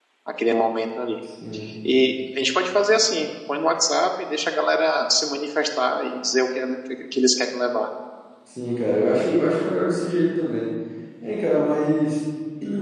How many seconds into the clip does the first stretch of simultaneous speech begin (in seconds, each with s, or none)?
none